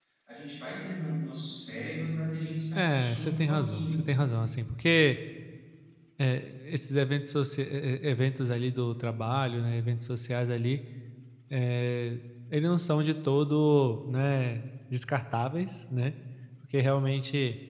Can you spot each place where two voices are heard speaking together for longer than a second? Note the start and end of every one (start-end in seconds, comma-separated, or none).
2.8-4.0